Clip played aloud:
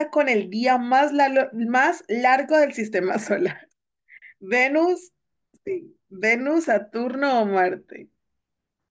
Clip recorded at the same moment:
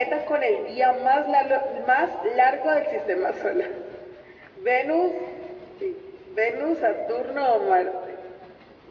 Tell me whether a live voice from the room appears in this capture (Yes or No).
No